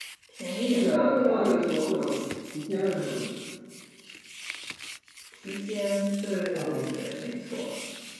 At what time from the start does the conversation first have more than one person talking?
1 s

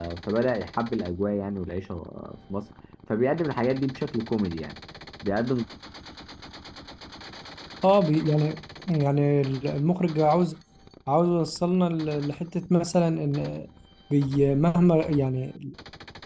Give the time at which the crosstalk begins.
none

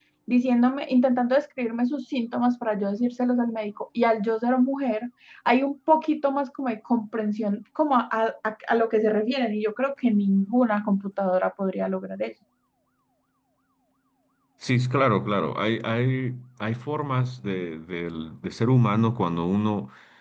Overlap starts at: none

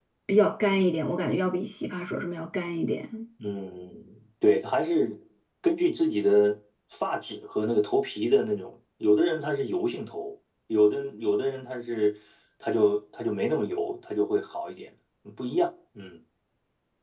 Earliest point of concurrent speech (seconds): none

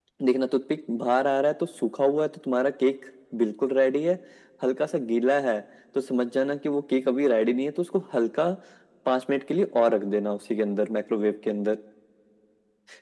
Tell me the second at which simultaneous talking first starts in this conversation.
none

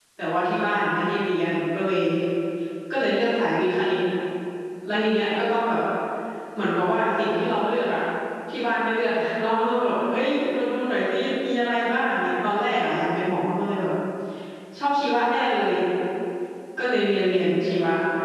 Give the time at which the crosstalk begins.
none

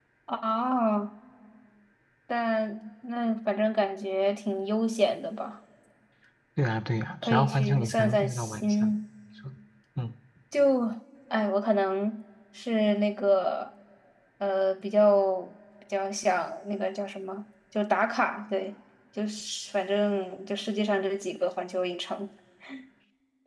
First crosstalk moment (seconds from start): 7 s

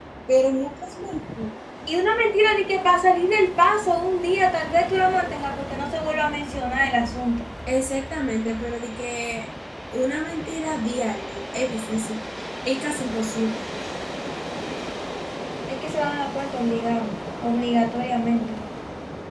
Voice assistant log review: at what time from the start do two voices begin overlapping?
none

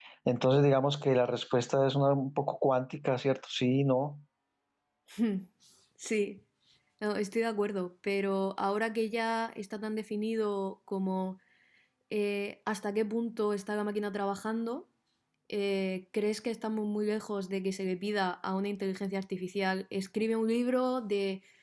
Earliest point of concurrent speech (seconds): none

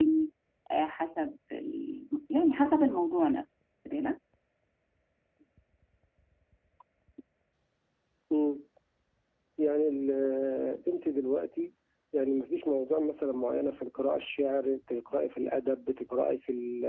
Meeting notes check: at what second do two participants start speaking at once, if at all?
none

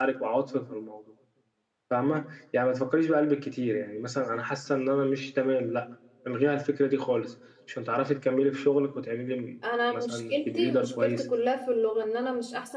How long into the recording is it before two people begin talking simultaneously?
10 s

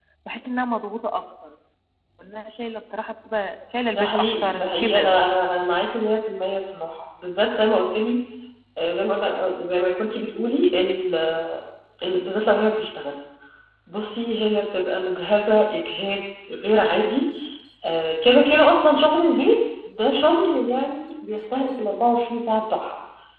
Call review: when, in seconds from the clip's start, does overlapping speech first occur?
4 s

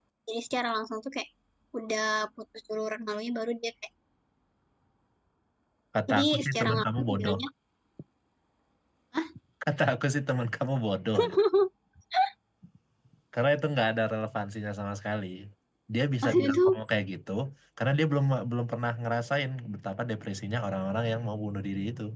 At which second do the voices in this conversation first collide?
6 s

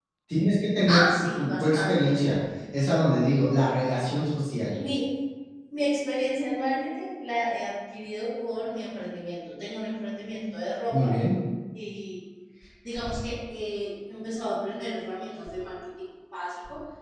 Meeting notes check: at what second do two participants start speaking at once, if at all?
1 s

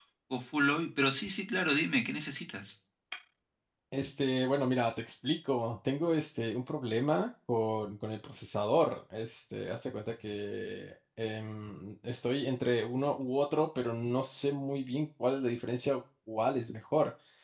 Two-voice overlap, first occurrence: none

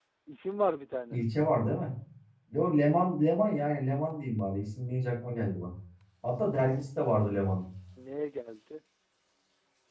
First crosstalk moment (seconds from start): none

